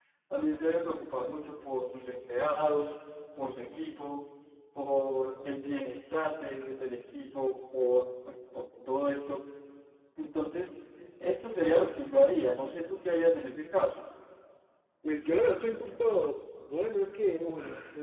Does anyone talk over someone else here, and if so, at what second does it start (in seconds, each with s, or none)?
none